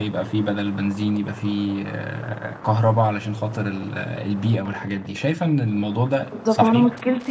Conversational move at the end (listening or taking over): taking over